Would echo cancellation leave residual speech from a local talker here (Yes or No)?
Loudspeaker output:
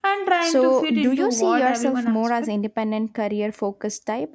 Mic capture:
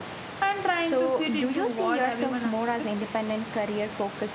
No